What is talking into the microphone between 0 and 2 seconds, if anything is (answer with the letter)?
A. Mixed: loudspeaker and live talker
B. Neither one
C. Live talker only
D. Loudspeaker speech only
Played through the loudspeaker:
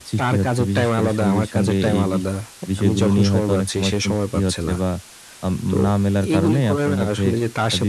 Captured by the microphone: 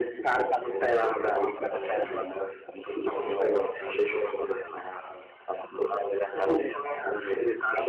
D